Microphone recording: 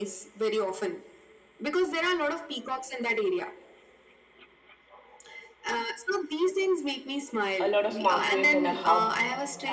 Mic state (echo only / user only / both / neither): both